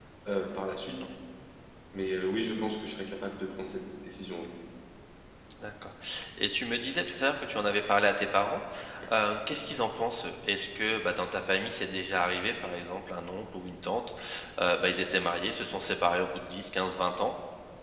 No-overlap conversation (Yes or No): Yes